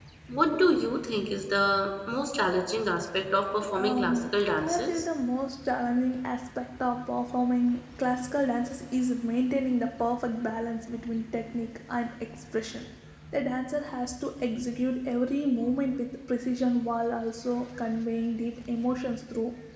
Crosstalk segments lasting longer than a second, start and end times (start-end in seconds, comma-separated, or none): 3.6-5.1